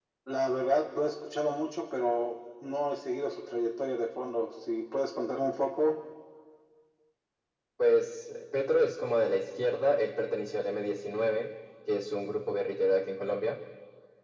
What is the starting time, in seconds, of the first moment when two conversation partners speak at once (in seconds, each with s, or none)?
none